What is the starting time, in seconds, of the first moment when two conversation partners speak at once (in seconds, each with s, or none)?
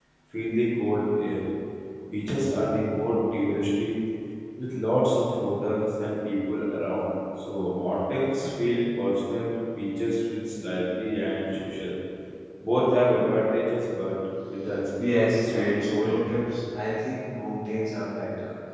15.0 s